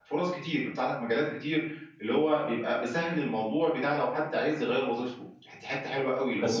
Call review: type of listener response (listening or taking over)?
taking over